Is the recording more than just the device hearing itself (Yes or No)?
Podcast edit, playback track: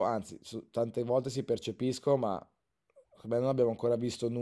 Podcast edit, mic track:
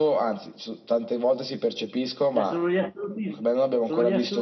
Yes